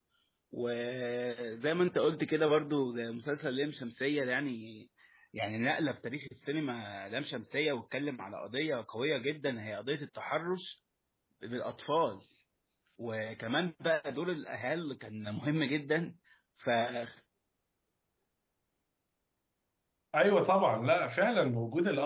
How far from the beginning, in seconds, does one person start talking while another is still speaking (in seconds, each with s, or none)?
none